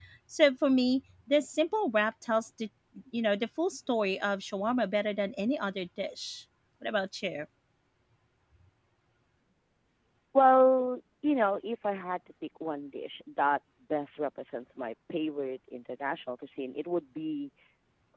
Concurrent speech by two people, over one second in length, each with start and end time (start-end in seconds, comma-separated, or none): none